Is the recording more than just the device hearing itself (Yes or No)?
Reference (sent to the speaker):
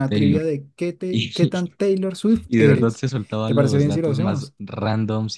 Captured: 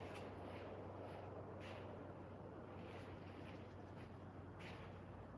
No